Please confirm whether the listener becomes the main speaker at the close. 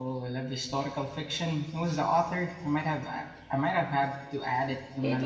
Yes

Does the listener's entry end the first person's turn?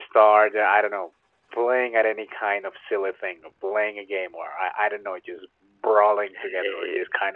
Yes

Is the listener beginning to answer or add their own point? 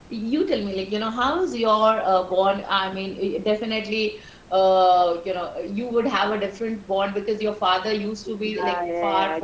Yes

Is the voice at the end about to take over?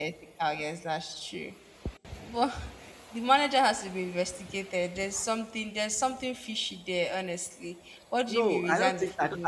Yes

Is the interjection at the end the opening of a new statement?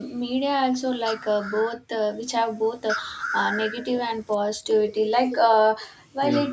No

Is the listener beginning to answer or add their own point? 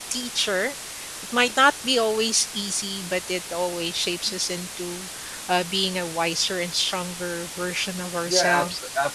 Yes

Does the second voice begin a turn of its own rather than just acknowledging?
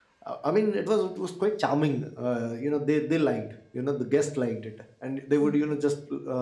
No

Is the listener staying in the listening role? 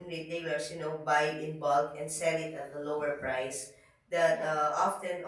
Yes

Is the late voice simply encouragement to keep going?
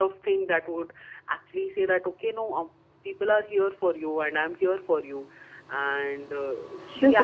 No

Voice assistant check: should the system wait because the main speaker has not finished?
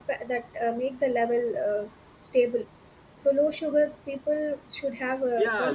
No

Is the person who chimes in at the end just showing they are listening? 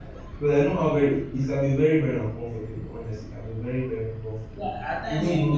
No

